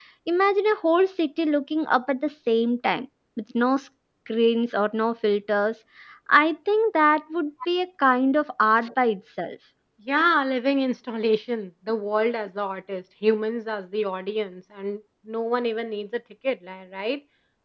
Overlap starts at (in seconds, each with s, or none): none